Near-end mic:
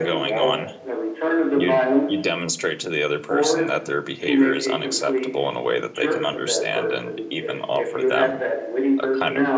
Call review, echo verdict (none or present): present